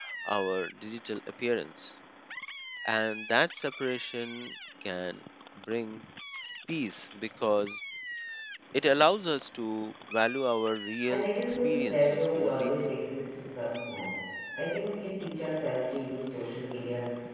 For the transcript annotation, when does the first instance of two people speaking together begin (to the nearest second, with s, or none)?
11 s